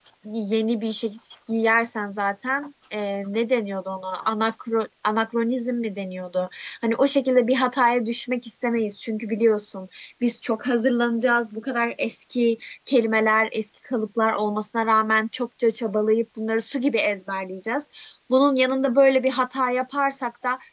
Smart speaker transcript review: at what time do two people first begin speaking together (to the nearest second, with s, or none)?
none